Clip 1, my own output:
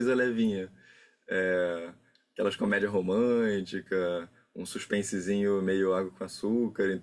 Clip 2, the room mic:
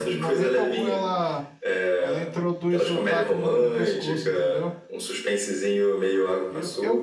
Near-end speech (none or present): present